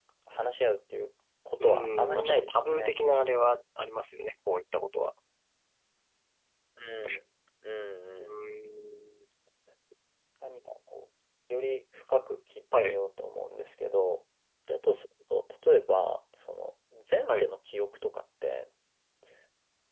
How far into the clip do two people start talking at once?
1.6 s

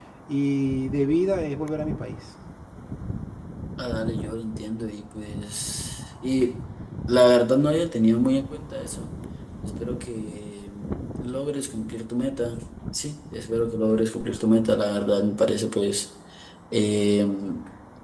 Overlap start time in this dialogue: none

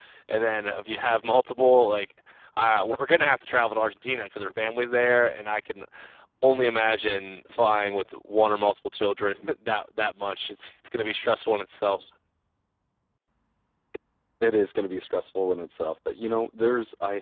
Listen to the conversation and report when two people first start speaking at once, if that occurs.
none

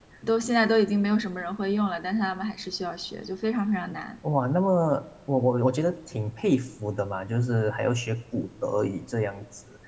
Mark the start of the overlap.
none

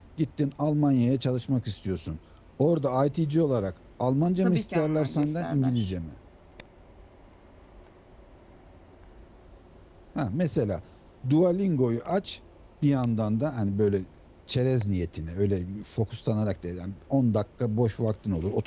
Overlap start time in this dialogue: 4.4 s

